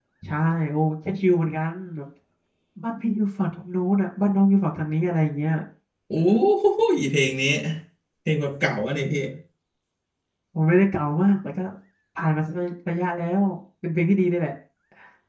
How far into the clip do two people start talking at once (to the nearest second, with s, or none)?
none